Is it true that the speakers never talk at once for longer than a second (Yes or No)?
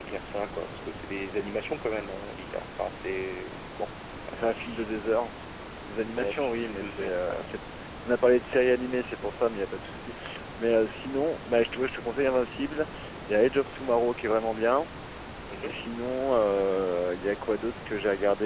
No